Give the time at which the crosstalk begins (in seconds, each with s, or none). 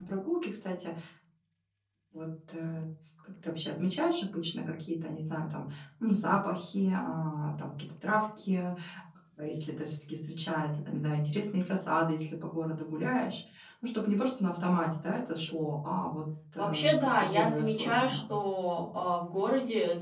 16.6 s